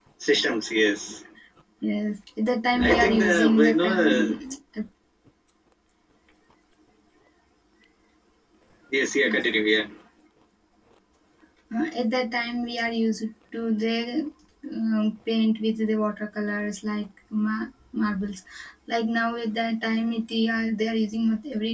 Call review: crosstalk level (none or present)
present